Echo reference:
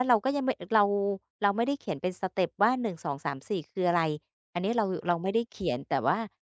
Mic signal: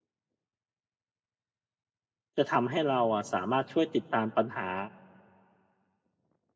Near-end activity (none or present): present